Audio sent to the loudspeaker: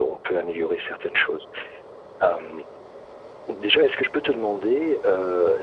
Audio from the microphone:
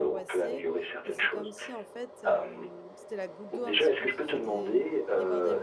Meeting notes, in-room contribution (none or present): present